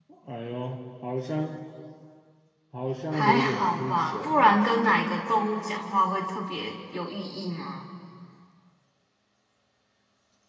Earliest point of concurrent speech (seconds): 3.1 s

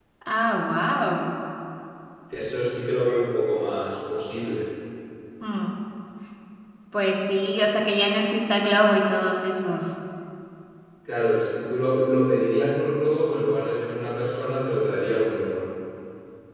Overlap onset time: none

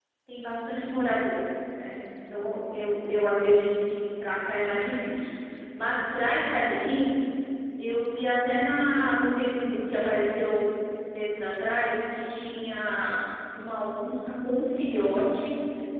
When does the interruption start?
none

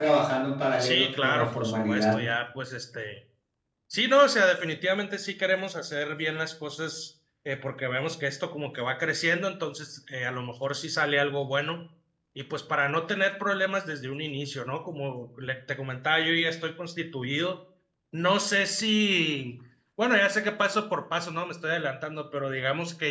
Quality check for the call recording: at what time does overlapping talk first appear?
0.8 s

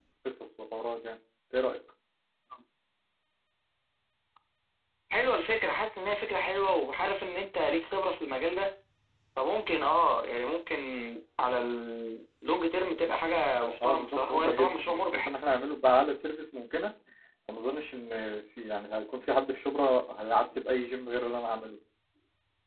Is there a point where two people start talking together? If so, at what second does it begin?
13.8 s

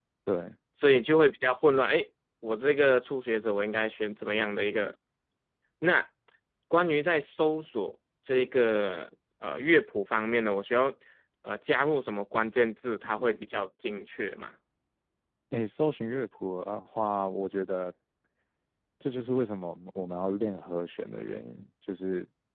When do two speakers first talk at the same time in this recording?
none

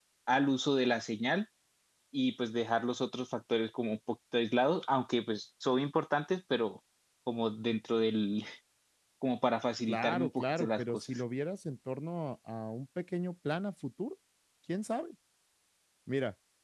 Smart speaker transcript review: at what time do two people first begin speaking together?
9.9 s

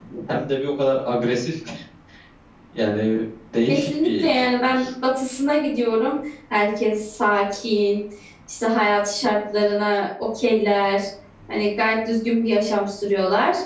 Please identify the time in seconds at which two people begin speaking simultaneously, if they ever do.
3.7 s

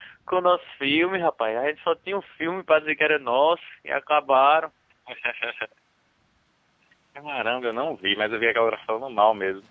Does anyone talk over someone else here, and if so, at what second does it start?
none

